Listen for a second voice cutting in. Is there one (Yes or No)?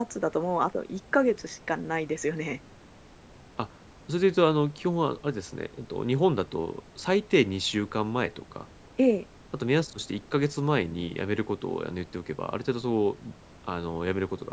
No